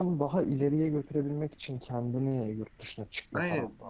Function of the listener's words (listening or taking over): taking over